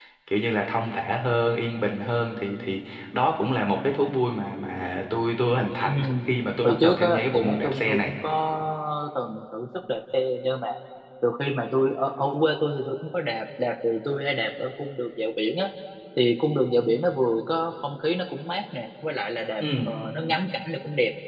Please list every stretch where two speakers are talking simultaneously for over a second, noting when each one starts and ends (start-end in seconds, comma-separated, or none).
6.6-8.1